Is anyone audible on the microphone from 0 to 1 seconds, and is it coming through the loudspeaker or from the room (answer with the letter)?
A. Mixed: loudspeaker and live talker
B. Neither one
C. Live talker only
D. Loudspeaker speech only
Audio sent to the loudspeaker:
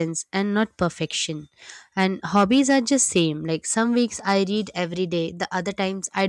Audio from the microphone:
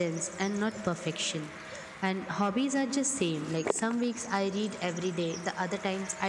D